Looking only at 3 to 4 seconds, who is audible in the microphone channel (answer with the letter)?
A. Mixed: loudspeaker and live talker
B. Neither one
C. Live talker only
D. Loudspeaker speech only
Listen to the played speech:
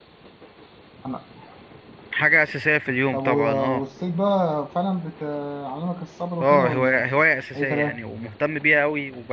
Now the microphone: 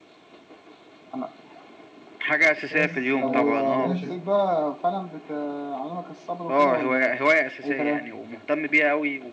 A